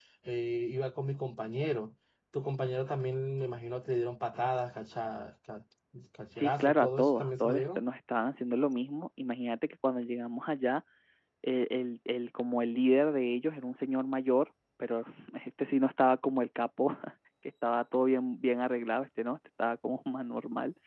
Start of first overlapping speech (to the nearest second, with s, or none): 6 s